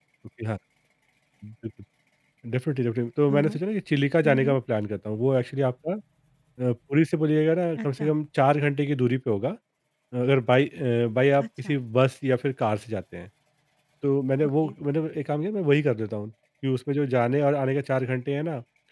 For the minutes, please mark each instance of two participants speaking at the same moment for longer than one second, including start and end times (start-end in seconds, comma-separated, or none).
none